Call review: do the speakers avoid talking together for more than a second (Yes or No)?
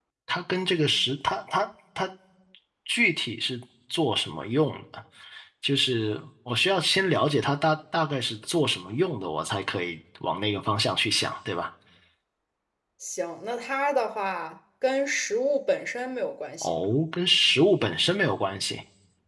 Yes